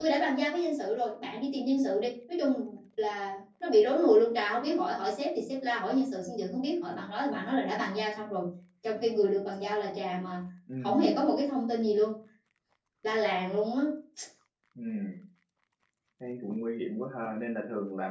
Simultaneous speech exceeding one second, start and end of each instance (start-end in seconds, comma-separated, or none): none